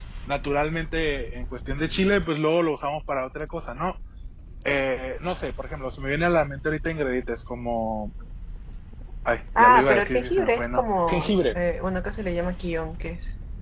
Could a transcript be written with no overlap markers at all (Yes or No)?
No